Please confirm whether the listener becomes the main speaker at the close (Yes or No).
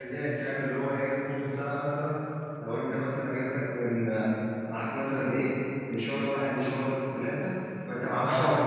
No